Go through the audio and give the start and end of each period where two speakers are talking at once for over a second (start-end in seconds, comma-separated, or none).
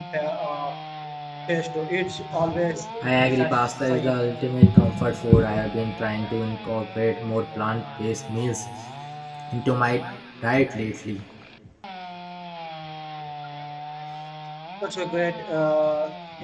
3.0-4.2